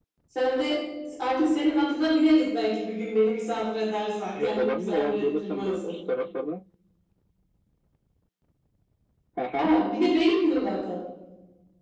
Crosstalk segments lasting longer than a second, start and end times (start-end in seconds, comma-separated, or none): 4.4-5.9